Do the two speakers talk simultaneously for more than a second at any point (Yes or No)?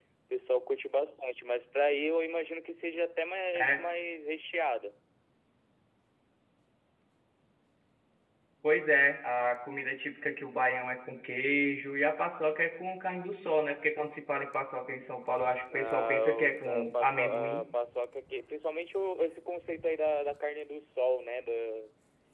Yes